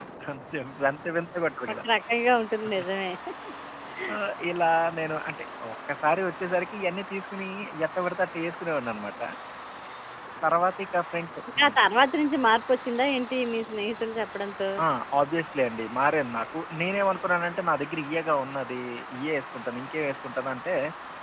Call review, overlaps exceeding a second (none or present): none